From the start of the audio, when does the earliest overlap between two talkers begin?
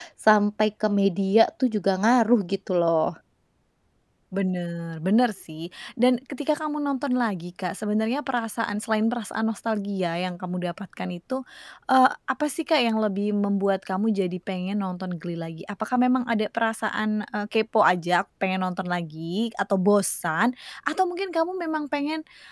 none

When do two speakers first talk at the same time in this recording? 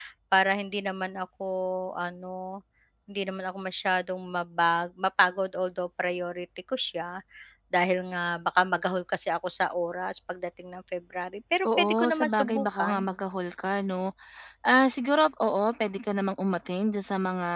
11.7 s

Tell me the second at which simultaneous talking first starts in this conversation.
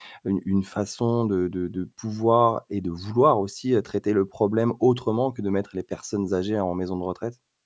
none

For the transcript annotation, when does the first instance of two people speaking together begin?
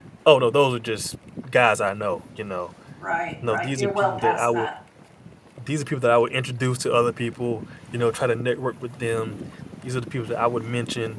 3.5 s

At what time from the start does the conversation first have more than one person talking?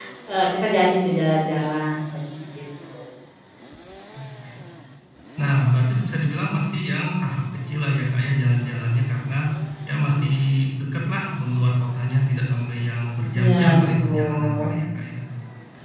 13.3 s

